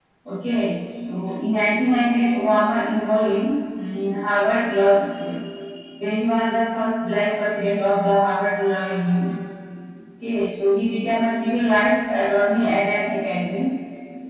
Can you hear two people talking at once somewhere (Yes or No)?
No